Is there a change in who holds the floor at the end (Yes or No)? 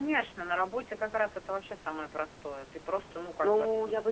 Yes